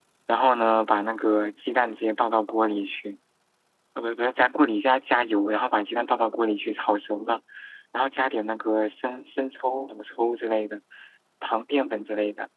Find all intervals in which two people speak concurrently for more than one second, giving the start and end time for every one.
none

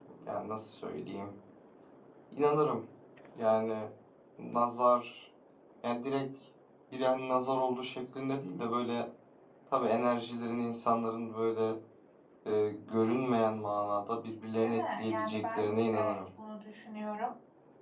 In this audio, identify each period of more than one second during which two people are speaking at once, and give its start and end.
14.6-16.2

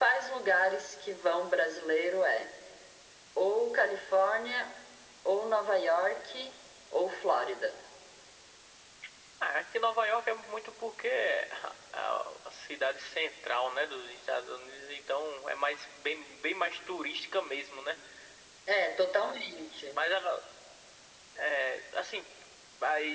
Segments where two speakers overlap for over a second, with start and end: none

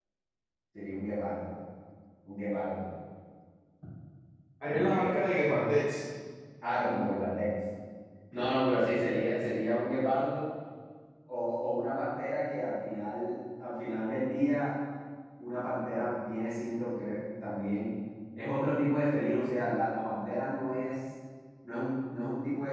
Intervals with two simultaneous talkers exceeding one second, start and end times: none

